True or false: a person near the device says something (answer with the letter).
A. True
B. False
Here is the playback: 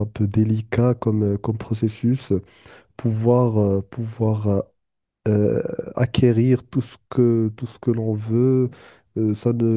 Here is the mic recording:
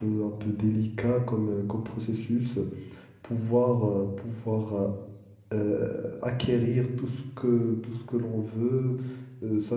B